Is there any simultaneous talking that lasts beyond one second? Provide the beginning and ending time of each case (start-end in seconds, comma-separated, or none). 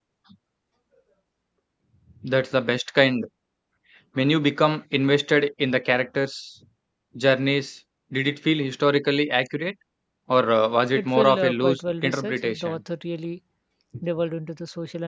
10.9-12.8